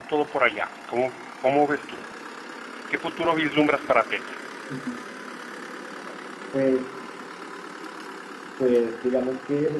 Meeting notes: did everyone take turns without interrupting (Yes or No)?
Yes